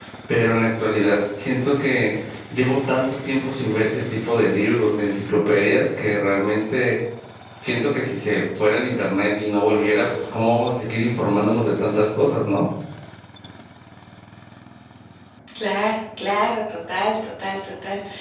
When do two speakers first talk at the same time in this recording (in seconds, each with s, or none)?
none